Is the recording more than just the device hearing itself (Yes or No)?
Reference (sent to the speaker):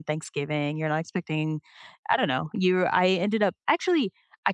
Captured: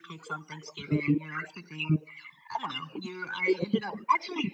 No